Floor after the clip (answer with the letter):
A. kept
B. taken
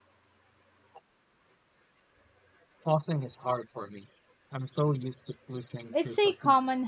B